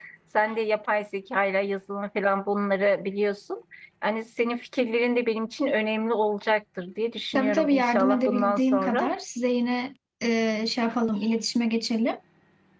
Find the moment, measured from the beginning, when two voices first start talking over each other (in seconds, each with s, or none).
7.3 s